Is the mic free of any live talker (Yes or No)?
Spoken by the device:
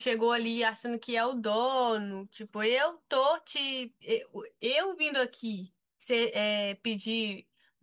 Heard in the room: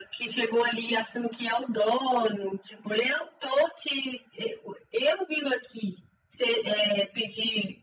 Yes